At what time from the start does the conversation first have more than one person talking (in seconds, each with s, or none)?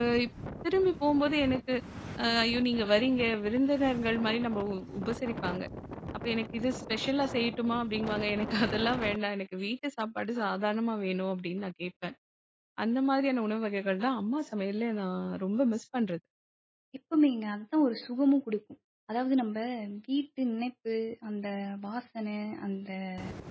none